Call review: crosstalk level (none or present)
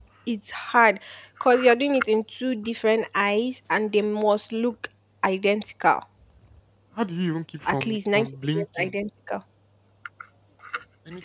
present